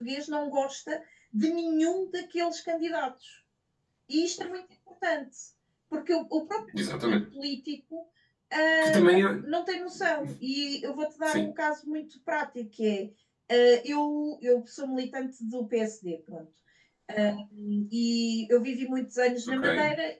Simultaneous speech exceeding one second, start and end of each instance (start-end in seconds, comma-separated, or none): none